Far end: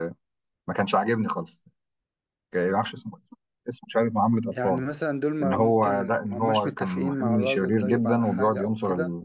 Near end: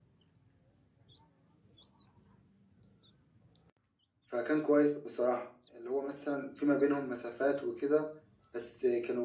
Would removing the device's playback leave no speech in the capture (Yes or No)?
No